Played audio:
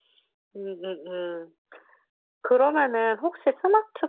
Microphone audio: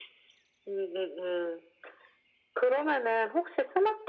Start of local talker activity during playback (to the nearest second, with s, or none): none